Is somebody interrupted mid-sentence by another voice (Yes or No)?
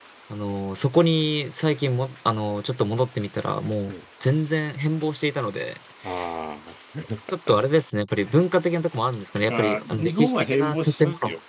Yes